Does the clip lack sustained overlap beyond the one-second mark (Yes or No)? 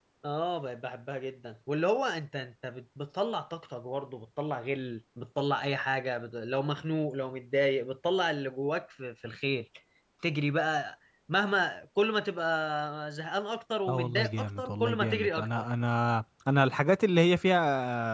No